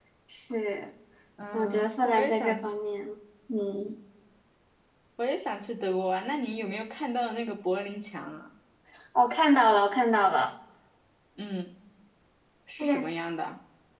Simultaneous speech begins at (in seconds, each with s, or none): 1.5 s